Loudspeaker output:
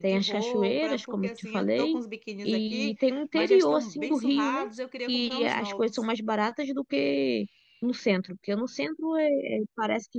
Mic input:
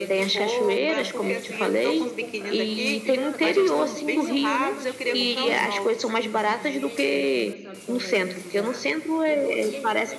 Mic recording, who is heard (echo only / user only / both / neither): both